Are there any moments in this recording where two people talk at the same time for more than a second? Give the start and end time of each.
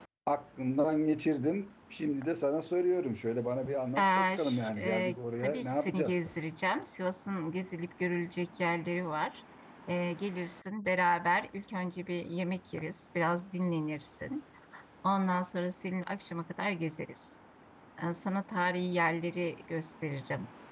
4.0-6.5

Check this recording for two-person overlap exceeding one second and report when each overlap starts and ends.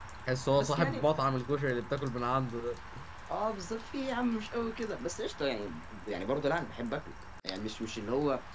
none

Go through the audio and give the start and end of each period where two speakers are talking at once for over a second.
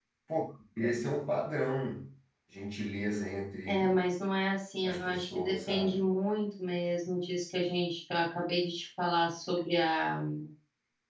4.8-6.1

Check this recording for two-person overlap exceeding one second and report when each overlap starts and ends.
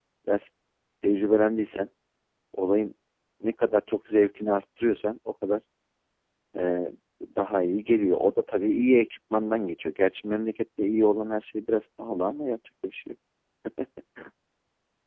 none

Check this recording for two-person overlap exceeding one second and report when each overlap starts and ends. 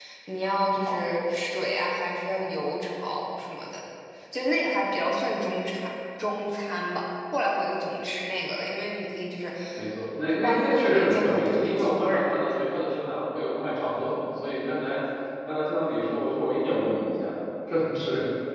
10.4-12.4

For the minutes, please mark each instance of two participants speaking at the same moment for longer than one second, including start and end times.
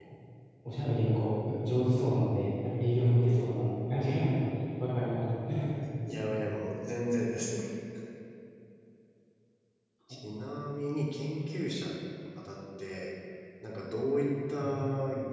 none

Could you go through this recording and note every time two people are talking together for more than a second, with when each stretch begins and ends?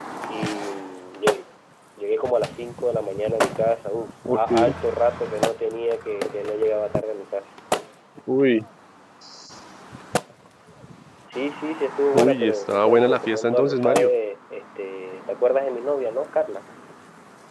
12.1-14.1

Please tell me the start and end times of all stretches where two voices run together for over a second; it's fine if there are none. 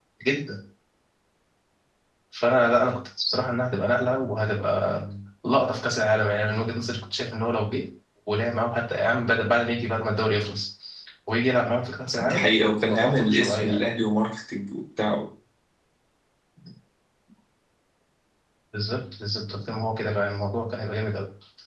12.2-13.8

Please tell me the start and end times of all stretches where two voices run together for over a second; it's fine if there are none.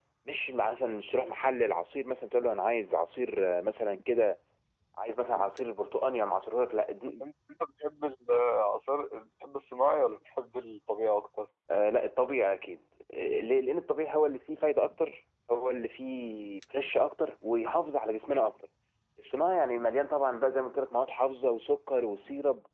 none

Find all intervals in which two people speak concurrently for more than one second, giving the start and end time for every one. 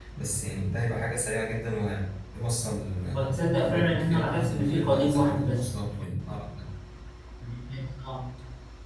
3.1-5.7

